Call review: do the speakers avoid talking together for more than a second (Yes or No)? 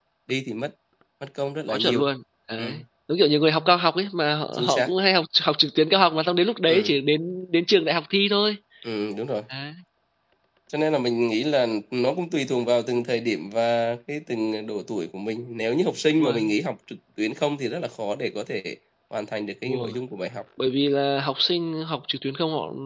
Yes